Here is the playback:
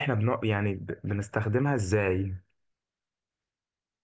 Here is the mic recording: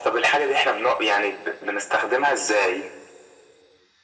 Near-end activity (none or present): none